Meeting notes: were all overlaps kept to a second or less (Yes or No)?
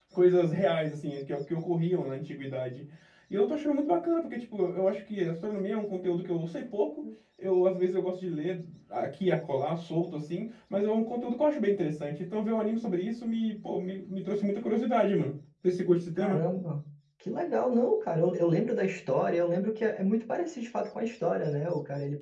Yes